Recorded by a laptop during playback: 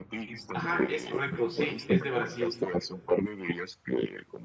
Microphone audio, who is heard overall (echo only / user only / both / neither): both